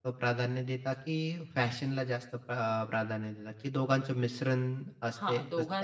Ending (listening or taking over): taking over